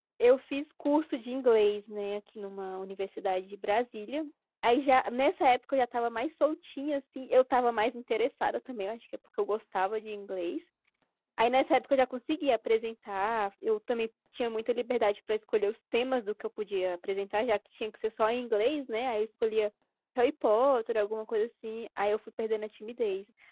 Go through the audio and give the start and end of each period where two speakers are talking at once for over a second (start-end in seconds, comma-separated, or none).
none